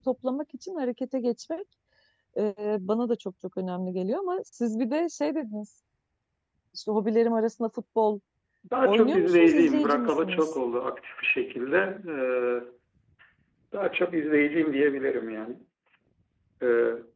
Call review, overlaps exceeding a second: present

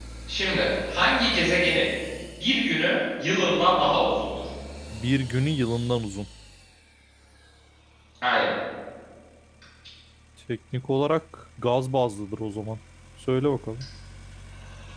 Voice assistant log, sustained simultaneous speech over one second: none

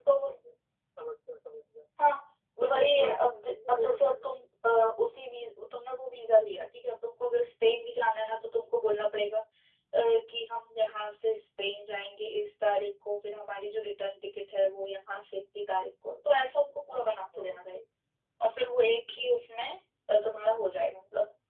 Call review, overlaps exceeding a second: present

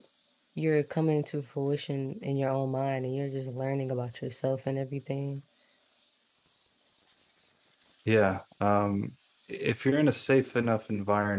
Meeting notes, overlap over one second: none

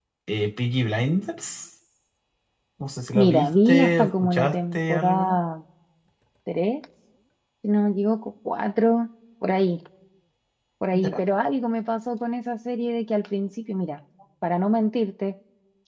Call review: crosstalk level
present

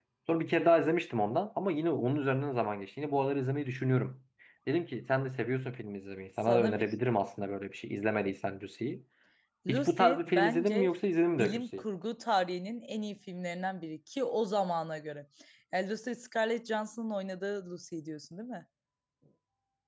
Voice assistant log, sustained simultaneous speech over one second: present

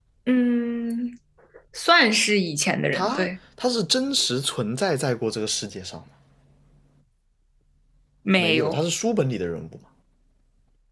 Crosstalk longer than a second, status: none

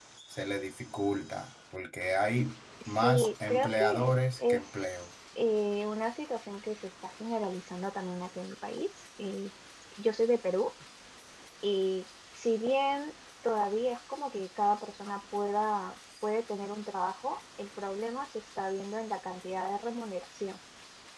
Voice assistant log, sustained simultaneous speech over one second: present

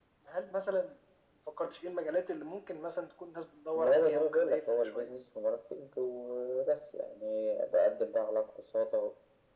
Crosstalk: present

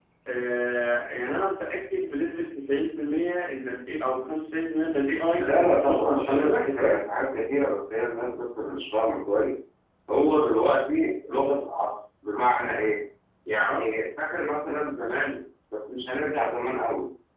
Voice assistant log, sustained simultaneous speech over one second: present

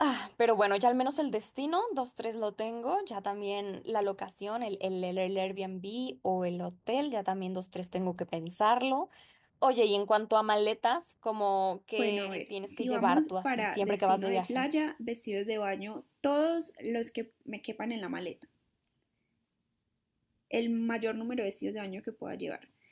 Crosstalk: present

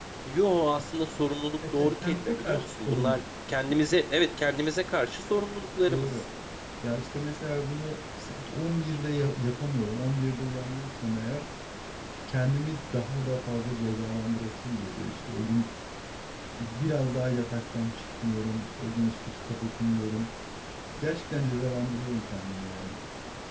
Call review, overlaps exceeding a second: present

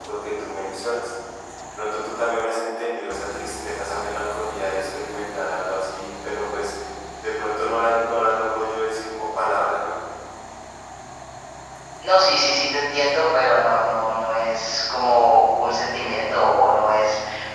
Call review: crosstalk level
none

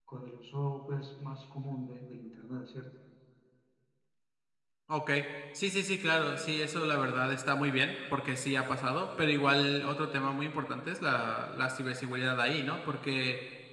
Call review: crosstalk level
none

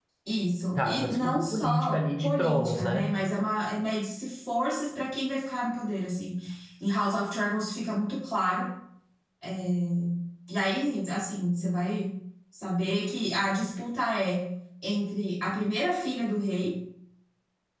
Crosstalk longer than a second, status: present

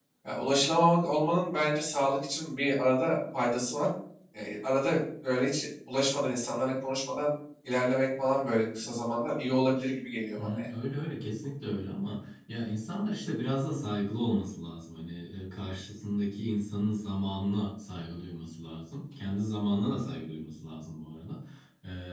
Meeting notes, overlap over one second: none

